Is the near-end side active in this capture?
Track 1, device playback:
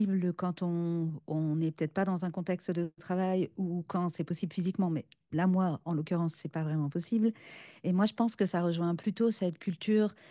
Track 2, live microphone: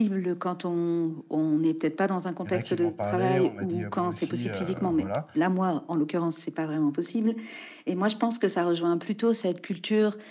Yes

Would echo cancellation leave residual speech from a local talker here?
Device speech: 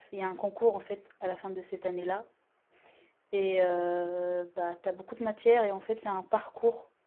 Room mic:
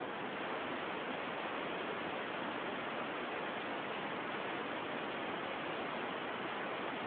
No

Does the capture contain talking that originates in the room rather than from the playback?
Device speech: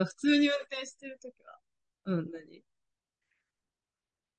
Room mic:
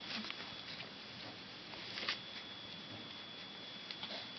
No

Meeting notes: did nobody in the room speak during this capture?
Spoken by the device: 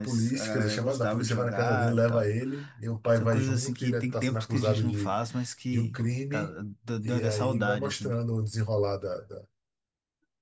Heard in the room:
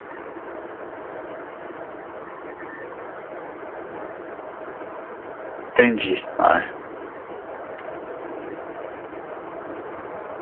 No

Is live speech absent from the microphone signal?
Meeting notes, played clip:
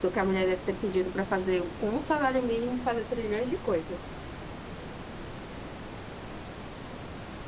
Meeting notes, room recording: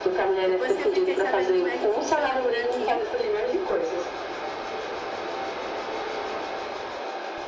No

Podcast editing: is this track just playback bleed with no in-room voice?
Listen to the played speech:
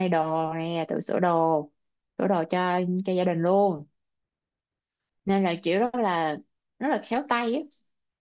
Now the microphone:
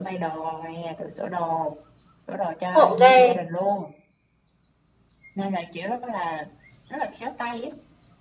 No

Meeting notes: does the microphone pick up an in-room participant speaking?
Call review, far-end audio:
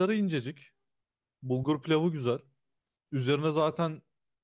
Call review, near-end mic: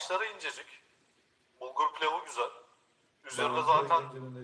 Yes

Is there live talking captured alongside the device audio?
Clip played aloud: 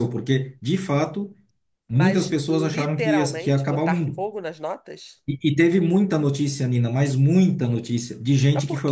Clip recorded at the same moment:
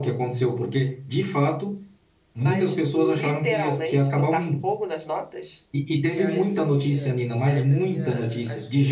Yes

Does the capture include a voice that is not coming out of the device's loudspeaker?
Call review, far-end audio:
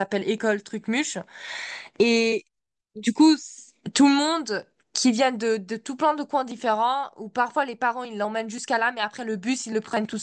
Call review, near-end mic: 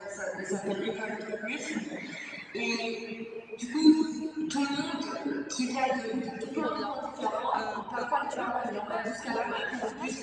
Yes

